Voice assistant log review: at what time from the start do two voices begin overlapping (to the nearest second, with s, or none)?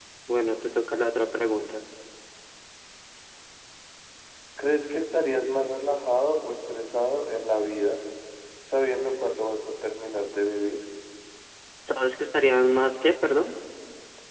none